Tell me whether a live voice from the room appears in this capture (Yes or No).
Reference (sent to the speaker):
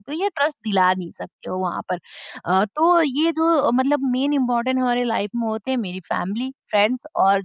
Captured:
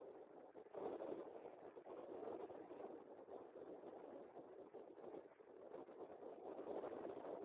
No